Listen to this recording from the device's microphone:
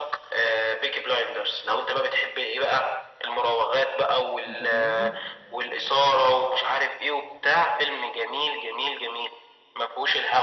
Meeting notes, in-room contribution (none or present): present